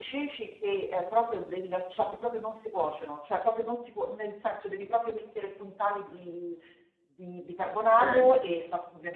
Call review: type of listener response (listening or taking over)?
listening